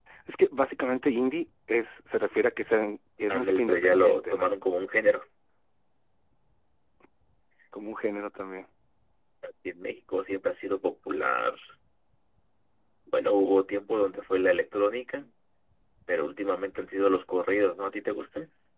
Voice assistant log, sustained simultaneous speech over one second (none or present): present